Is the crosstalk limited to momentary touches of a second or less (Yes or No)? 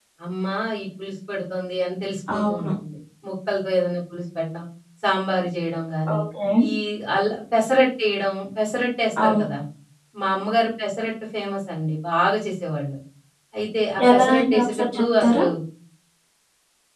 No